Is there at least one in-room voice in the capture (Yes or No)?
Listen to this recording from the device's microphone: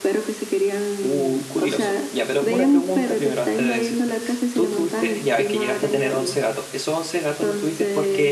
Yes